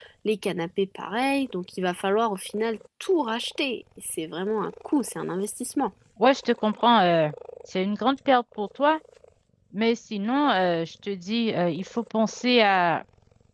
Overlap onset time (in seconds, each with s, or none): none